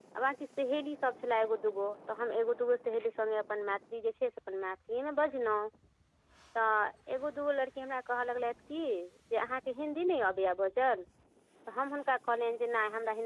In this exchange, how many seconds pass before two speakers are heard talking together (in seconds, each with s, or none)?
none